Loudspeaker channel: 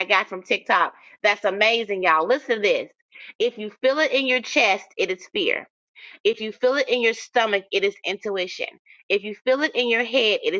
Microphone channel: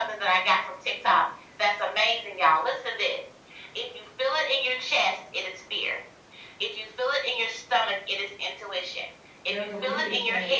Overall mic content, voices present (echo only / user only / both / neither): both